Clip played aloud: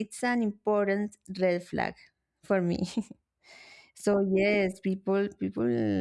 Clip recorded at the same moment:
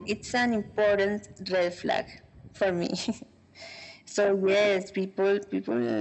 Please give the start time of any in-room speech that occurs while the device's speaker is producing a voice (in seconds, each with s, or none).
none